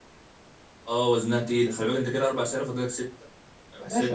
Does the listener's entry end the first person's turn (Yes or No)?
Yes